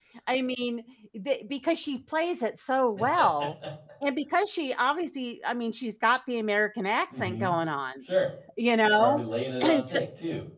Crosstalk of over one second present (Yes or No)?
No